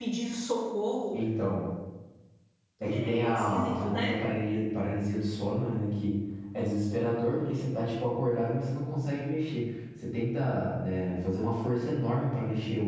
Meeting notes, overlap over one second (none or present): present